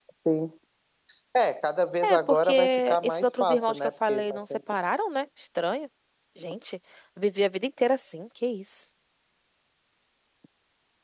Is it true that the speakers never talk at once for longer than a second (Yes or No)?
No